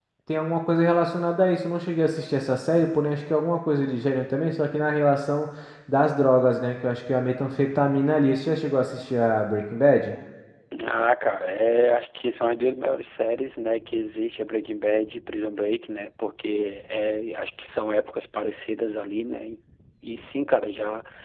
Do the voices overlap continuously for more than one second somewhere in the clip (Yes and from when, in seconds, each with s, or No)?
No